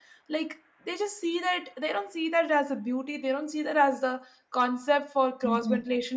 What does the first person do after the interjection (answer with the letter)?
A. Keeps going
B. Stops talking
A